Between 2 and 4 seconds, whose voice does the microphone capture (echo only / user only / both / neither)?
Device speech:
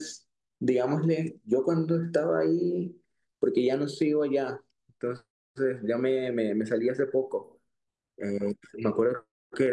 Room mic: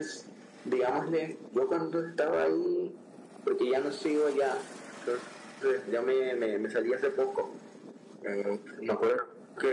echo only